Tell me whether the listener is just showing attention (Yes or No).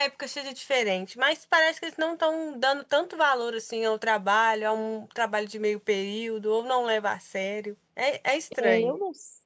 No